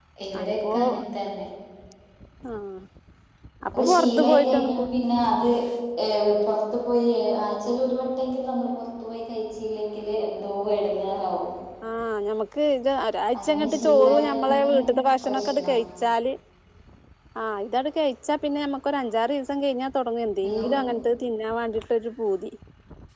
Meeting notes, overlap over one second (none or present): present